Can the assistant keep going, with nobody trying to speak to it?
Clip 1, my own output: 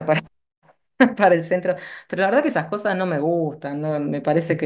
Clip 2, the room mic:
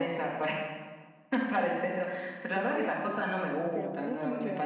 No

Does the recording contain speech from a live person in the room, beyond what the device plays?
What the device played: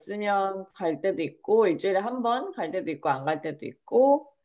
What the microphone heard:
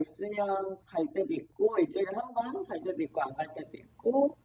No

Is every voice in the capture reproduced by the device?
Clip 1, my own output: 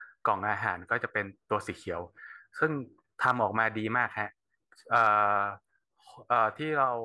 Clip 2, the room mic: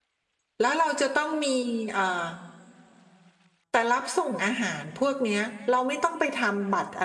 No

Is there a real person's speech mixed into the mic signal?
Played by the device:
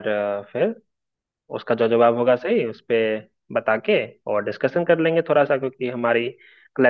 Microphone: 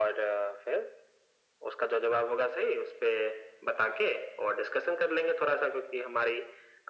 No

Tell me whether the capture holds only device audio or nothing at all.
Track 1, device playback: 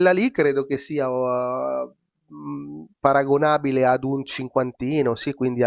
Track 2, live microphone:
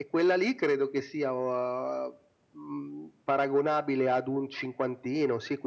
Yes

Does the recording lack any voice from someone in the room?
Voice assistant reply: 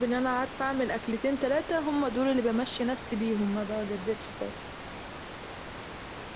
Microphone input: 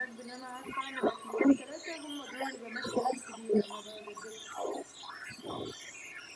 Yes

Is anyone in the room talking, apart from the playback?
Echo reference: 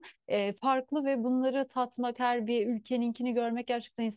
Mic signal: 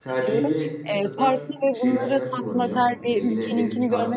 Yes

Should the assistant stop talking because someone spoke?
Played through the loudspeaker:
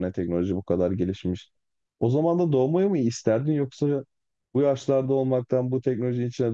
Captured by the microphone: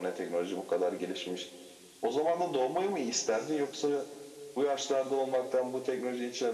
No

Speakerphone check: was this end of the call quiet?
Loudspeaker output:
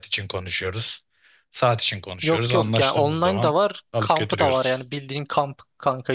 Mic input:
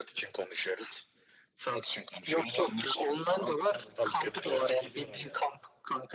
No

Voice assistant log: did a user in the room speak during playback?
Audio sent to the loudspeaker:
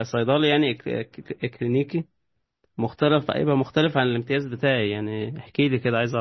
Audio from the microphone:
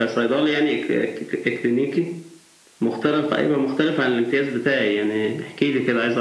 No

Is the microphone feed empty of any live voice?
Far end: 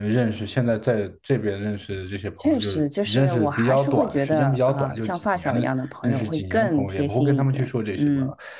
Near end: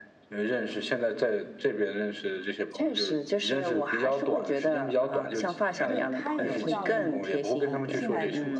No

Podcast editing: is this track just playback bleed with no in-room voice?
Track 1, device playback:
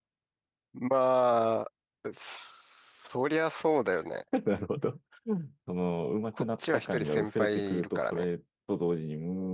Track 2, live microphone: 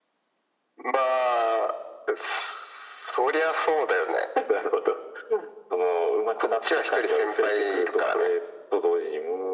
Yes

